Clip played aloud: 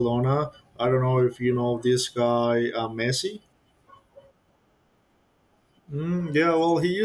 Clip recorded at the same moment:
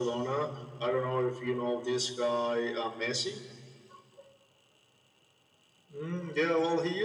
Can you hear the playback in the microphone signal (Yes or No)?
Yes